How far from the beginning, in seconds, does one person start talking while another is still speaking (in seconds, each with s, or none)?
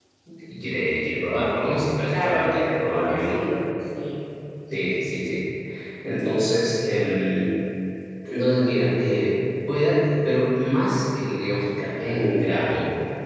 2.1 s